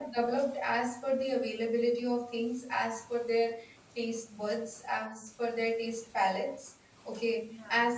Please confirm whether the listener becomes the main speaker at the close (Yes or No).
No